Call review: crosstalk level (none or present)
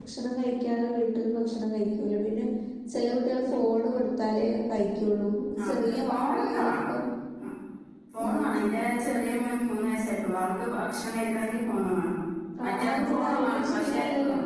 present